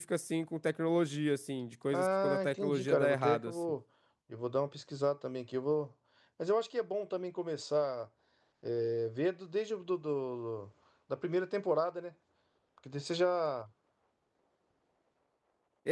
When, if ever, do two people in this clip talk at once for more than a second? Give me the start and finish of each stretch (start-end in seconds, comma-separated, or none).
1.9-3.5